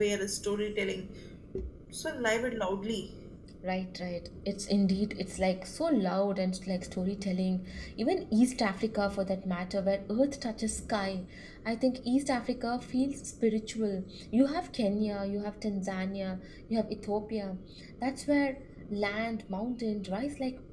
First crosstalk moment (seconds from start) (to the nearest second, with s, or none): none